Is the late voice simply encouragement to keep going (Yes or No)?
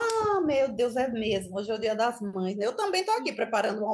Yes